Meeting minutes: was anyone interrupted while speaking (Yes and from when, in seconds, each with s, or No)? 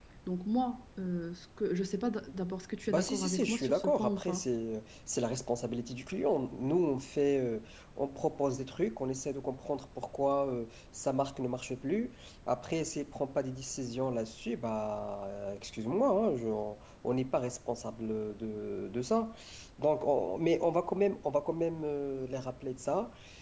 Yes, from 2.9 s